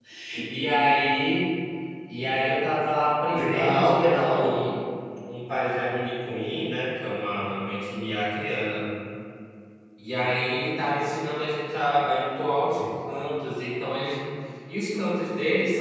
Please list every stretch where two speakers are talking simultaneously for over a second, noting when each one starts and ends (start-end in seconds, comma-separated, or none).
3.3-4.6